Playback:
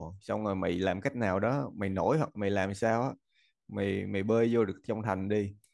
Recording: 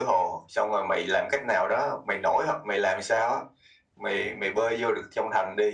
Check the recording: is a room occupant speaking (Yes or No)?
No